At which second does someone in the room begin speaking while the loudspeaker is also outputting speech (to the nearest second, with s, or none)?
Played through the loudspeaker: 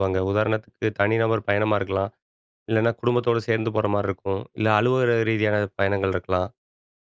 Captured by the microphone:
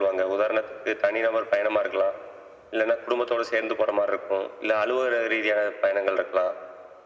none